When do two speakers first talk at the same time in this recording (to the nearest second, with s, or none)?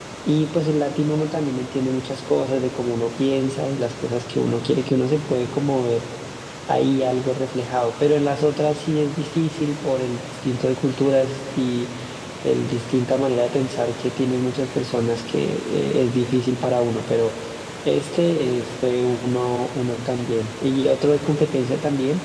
none